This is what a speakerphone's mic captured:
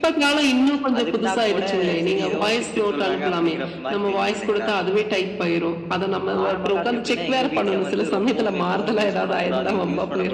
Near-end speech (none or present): none